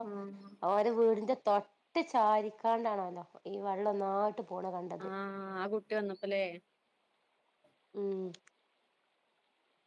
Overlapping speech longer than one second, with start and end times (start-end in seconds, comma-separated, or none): none